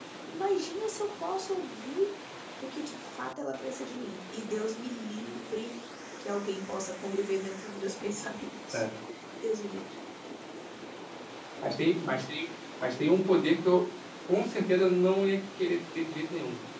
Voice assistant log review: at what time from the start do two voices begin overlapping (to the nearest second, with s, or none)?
none